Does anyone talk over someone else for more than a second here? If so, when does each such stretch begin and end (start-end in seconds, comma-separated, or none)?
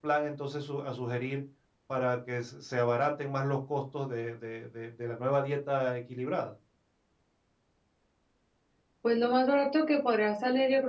none